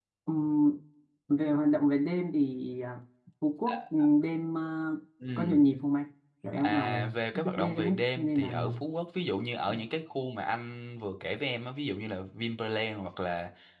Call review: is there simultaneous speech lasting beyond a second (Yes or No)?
Yes